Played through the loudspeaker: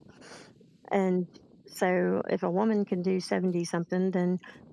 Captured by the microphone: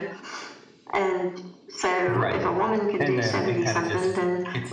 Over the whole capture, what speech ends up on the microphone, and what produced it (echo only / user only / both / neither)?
both